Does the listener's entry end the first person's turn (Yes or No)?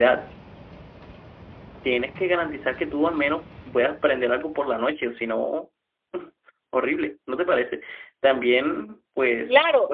Yes